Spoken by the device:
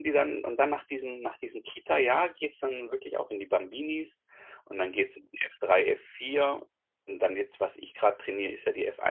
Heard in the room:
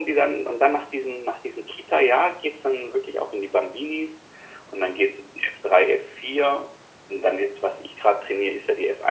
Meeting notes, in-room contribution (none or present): none